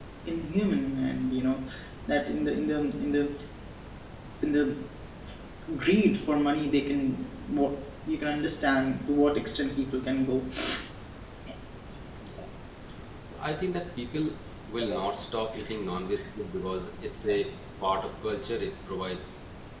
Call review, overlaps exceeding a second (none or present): none